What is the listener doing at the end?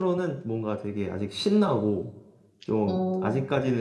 listening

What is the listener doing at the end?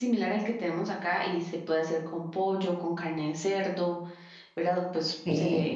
listening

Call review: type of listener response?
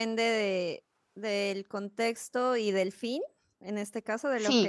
taking over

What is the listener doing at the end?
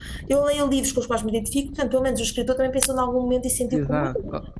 taking over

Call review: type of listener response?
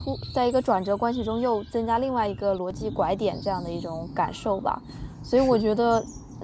listening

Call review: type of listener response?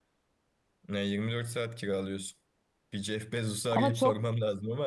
listening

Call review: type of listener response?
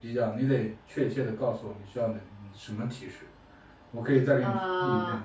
listening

